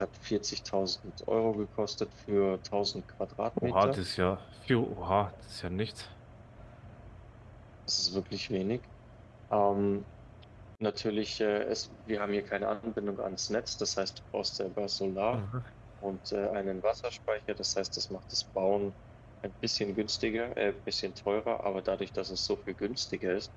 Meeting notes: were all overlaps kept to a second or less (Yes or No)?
Yes